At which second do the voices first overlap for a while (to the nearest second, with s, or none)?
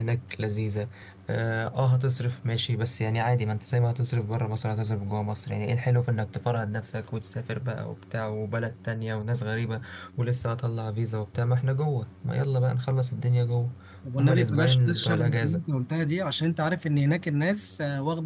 14 s